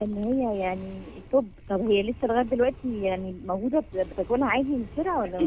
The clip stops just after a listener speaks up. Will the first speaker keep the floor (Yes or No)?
No